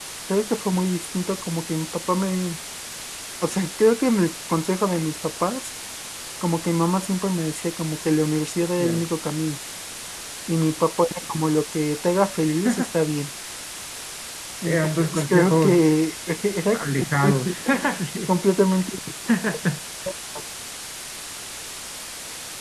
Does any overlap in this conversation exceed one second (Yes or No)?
Yes